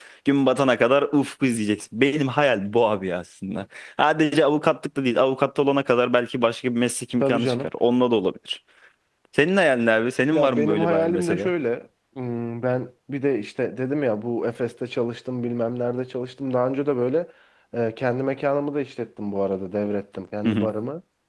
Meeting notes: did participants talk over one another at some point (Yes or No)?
Yes